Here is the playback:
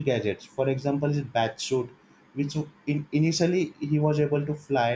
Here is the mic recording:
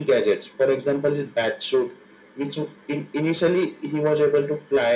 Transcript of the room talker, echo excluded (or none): none